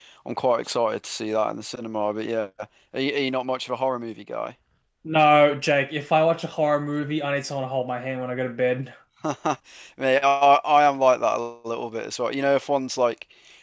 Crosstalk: none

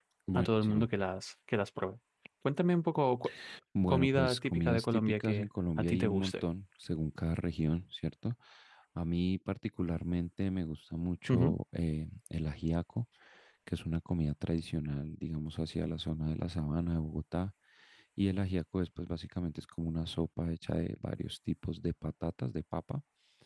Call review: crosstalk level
present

